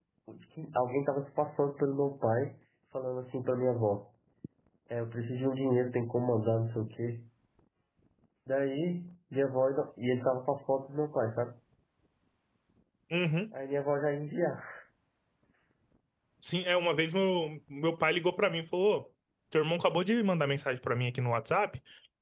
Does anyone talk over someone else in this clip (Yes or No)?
No